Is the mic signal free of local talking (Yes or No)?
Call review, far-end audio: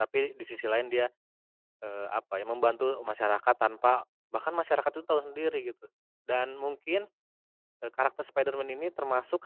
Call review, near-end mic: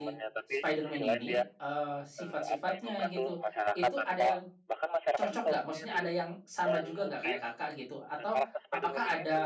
No